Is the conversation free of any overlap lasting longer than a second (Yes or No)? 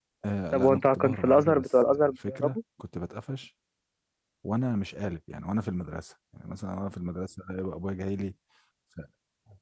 No